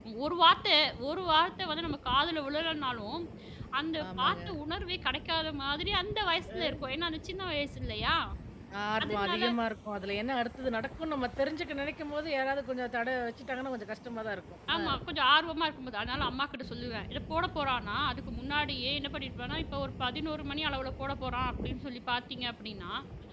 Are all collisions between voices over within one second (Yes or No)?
Yes